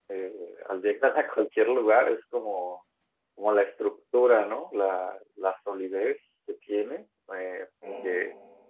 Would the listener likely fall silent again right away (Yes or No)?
Yes